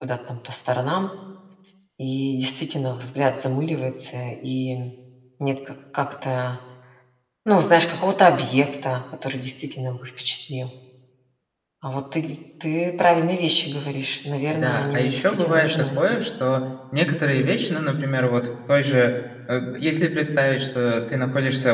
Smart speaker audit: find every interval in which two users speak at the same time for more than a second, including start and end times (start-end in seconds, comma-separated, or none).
14.5-16.0